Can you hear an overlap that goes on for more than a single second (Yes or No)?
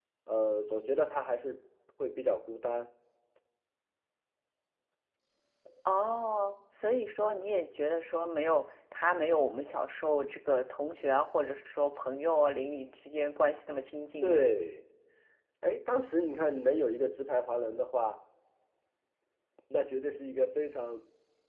No